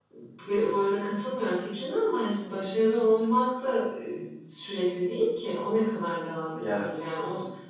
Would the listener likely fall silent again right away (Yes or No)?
Yes